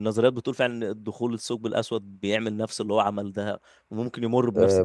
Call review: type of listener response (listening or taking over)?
taking over